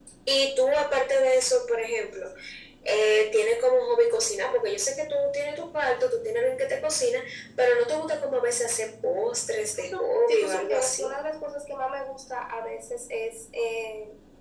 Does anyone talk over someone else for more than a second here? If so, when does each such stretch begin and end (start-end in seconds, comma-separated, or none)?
9.9-11.1